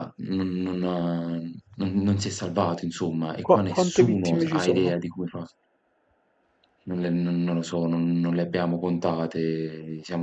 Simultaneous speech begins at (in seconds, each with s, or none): 3.4 s